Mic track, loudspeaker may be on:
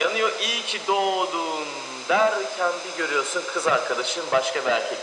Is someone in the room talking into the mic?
No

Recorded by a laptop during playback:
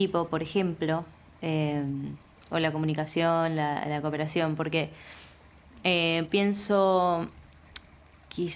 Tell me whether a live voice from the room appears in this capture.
Yes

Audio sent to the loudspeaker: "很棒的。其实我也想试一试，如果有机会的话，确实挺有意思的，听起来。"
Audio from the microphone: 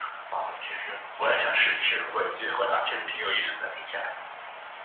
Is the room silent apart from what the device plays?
Yes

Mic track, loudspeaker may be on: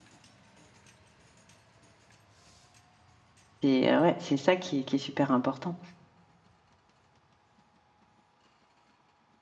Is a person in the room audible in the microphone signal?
Yes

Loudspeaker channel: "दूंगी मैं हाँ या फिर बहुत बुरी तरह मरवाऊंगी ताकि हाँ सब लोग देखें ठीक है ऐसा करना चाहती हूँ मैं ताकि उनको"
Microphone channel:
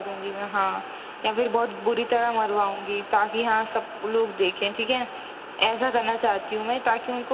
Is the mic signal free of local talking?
Yes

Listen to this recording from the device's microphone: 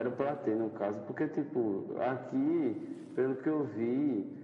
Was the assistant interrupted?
No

